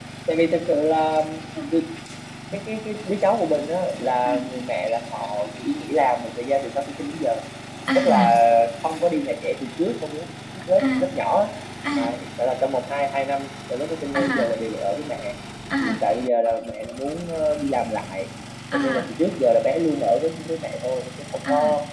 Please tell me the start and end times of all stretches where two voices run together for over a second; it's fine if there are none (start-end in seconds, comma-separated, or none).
none